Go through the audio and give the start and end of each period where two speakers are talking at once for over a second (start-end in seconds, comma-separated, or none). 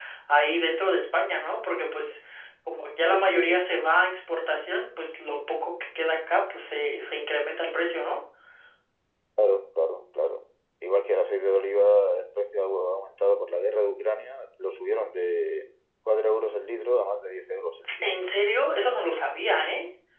none